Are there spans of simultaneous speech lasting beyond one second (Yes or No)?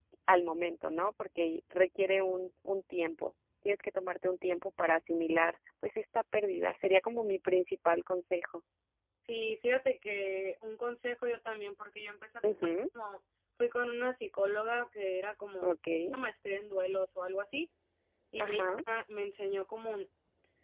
No